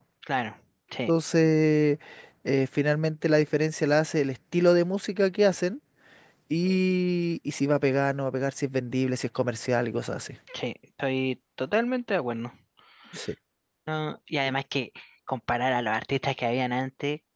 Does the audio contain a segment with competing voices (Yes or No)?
No